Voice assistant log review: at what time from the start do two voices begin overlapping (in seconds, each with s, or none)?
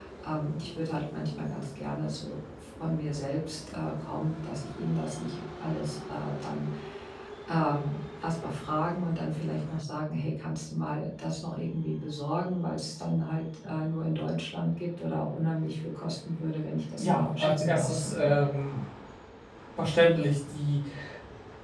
17.0 s